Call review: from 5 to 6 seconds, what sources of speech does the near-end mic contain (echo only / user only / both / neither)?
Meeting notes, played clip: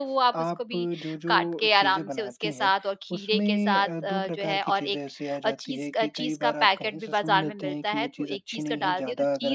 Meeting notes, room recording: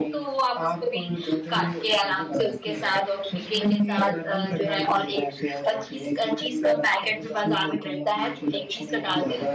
echo only